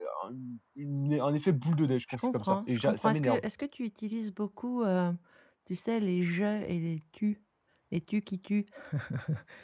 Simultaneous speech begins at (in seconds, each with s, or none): 2.1 s